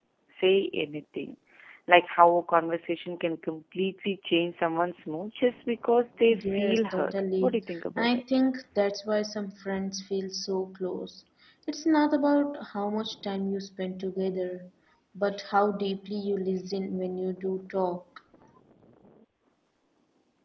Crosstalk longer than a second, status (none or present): present